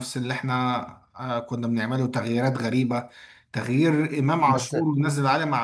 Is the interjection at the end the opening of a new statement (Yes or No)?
No